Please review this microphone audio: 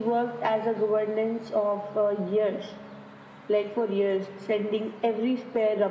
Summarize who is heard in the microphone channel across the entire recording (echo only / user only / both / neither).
echo only